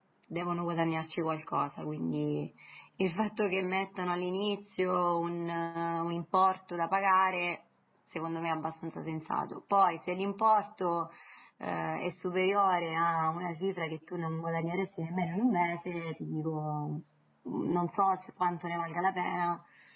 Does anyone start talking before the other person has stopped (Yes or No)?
No